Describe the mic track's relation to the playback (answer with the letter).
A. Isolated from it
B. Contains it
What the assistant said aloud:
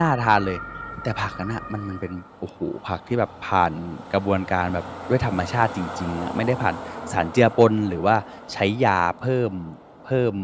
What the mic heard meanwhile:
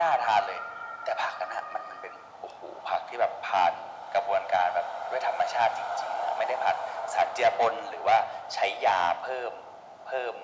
B